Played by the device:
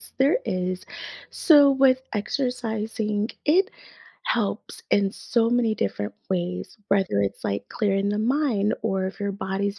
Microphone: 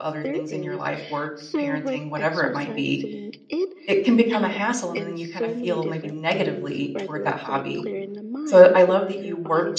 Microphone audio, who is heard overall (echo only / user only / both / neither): both